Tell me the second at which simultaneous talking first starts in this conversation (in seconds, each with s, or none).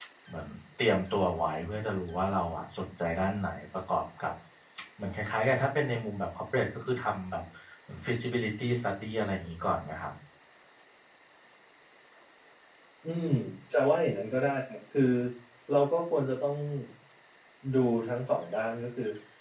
none